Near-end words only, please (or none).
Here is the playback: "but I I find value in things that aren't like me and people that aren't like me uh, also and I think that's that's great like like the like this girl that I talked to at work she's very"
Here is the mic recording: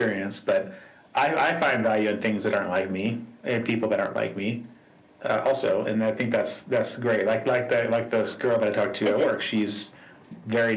It's it's